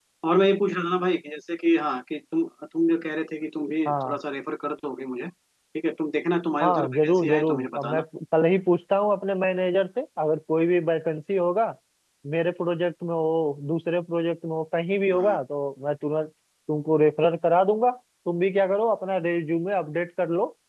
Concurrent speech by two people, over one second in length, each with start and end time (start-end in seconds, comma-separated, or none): 6.6-8.0